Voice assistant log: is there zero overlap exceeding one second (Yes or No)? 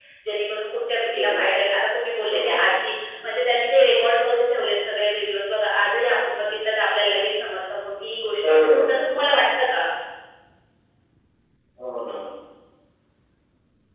Yes